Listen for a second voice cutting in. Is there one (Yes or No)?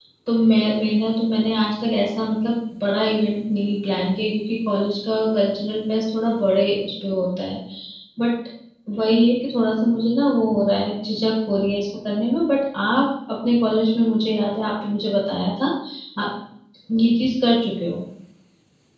No